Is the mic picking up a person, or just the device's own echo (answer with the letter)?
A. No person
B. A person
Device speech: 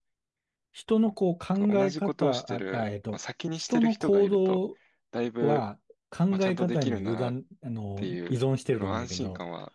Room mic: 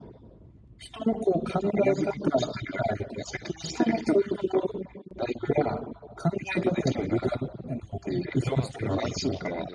B